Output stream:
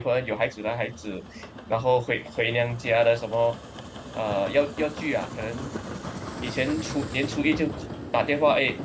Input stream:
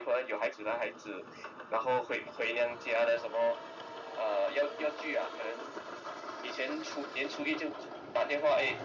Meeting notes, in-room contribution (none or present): none